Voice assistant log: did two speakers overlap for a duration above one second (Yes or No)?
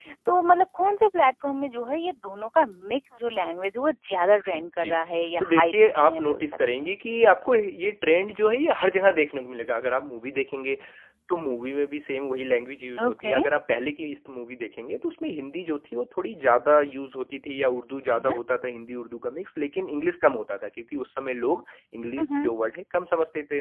Yes